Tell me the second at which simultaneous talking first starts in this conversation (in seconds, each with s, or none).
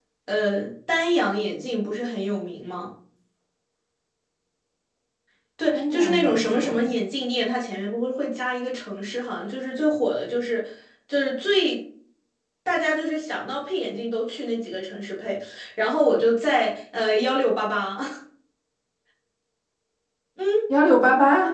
5.7 s